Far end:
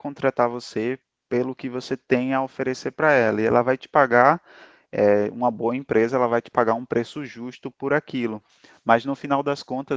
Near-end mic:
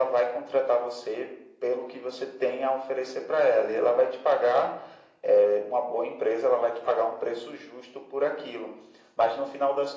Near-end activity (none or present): none